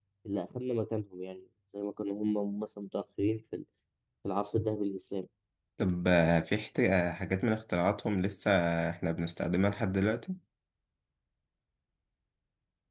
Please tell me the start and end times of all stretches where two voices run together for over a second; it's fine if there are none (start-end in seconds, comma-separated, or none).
none